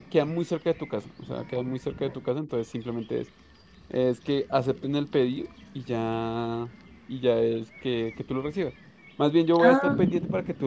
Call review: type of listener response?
listening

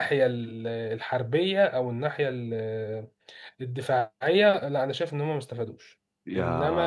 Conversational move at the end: taking over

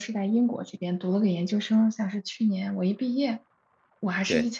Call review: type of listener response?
listening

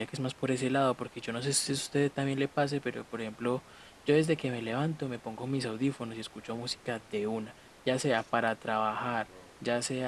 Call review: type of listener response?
listening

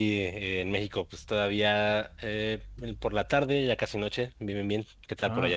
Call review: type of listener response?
taking over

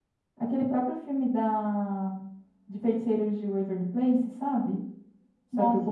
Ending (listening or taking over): taking over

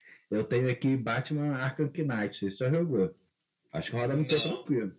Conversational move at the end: taking over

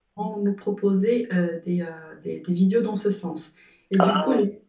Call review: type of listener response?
listening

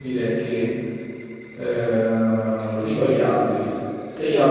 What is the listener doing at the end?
listening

